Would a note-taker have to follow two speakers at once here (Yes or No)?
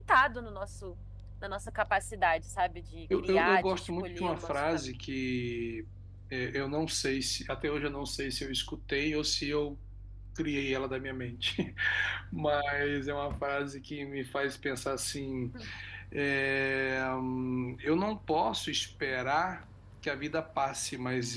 Yes